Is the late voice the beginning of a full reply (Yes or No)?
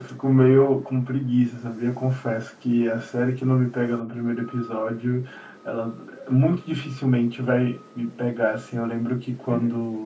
No